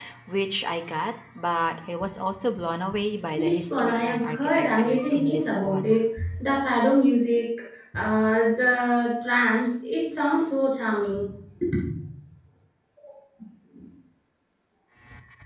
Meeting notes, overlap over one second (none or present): present